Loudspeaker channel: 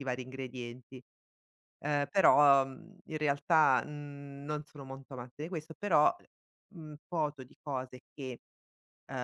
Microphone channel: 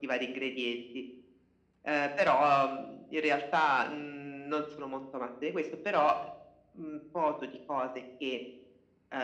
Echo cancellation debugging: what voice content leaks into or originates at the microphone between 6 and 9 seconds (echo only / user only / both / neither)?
echo only